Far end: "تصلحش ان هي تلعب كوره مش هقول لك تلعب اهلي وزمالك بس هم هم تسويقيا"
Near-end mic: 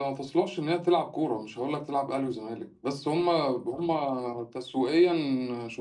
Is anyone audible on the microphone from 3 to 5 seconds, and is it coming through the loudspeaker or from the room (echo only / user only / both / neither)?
echo only